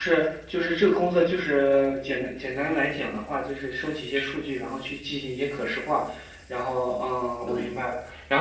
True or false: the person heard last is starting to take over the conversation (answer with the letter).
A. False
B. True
A